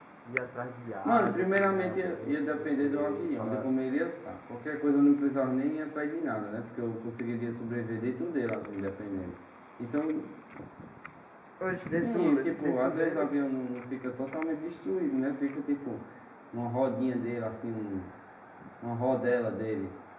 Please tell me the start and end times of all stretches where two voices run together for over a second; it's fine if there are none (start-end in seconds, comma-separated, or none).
1.1-3.7, 12.0-13.2